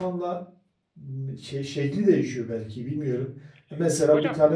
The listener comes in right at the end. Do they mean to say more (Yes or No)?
No